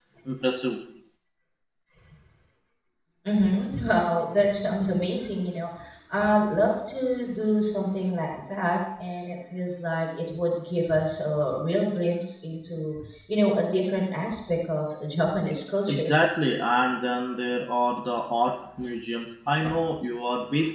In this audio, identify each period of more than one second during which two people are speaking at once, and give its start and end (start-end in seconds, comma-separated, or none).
none